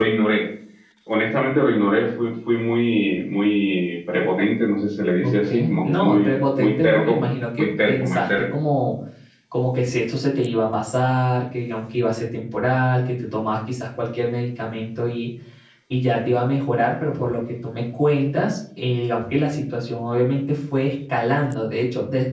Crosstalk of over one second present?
Yes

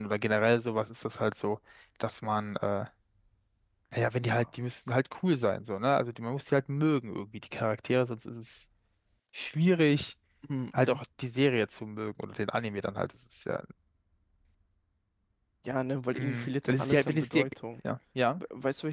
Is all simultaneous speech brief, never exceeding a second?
No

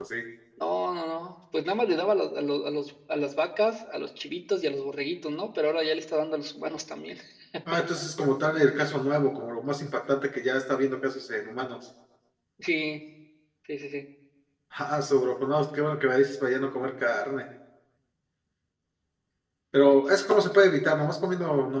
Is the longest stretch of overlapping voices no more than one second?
Yes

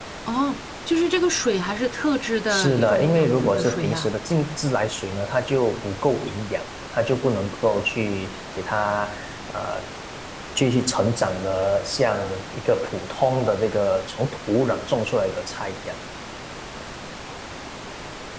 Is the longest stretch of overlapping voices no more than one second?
No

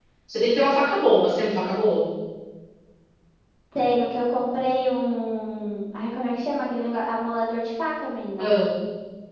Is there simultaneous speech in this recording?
No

